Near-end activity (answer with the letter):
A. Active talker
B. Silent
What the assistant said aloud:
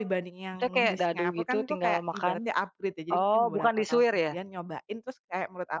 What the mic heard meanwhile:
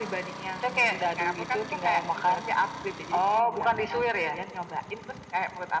B